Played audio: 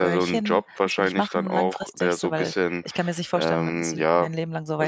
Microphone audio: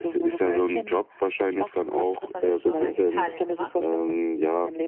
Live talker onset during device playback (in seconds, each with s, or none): 2.2 s